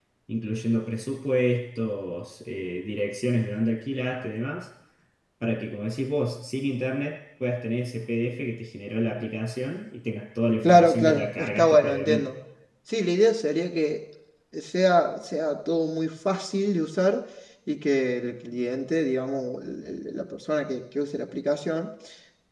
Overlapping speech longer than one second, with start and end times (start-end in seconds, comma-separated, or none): 10.6-12.3